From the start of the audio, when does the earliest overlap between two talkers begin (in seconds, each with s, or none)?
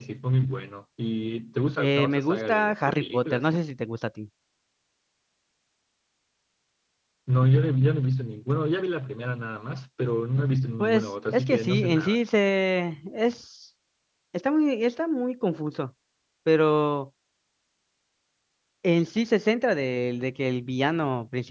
1.8 s